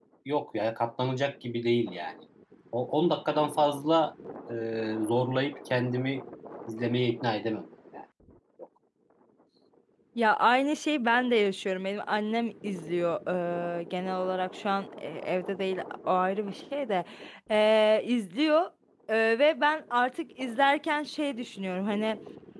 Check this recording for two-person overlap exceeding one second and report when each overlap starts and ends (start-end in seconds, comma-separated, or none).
none